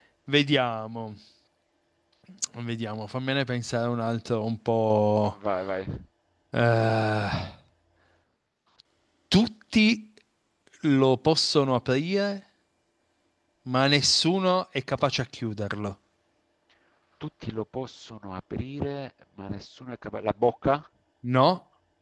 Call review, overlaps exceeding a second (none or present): none